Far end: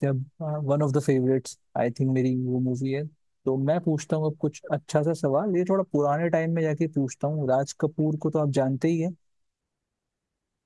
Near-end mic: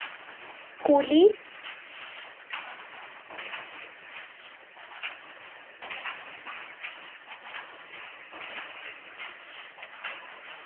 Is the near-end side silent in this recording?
No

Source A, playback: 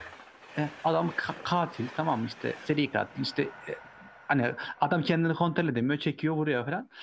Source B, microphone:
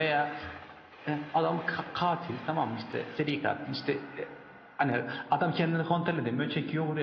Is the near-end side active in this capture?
No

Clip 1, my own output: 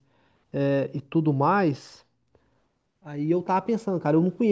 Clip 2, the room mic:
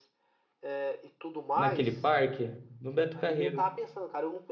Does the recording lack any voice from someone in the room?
No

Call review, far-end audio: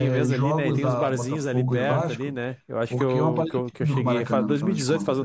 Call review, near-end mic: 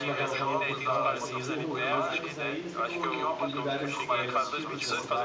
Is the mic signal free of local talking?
No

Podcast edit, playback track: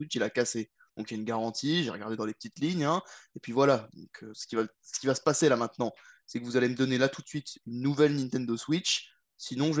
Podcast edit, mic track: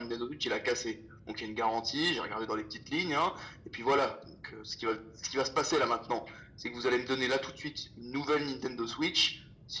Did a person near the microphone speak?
No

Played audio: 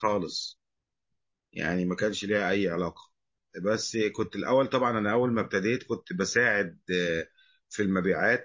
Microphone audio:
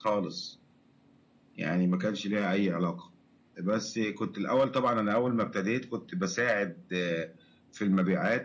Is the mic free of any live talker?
Yes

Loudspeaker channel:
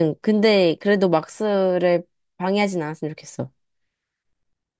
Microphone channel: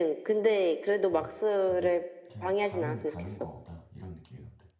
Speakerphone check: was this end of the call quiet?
No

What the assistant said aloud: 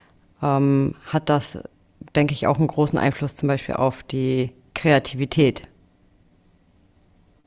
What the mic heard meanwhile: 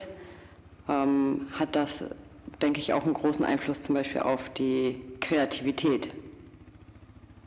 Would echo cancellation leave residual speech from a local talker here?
No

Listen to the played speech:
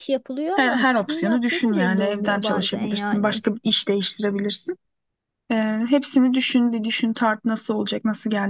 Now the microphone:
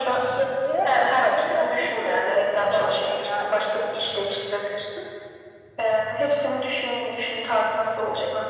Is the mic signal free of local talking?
Yes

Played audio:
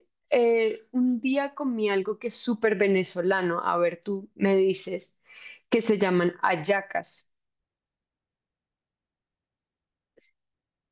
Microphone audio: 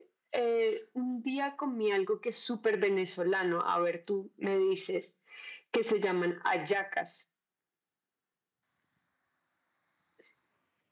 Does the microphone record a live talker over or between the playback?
No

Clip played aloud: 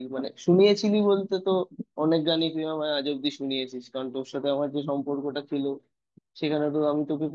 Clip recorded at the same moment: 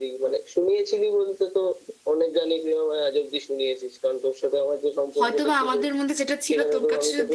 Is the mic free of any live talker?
No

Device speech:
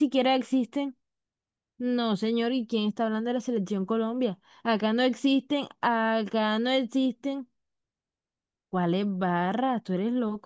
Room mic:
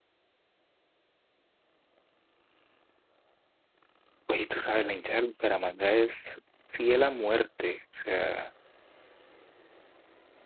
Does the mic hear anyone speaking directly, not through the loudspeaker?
Yes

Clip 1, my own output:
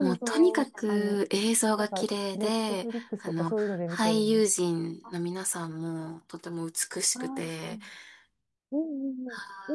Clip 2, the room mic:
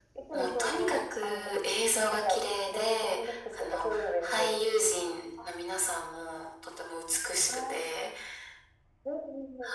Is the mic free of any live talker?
Yes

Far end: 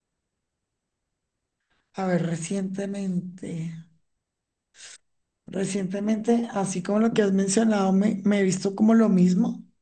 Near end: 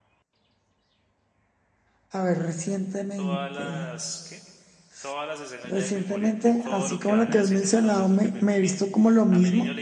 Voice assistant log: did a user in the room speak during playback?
Yes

